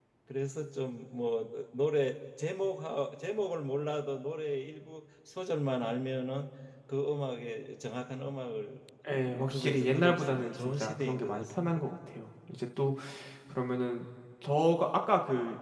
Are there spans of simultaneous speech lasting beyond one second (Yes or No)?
Yes